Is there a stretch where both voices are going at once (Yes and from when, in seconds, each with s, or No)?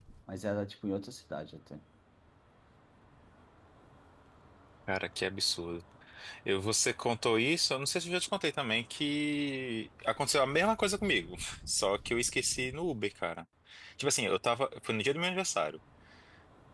No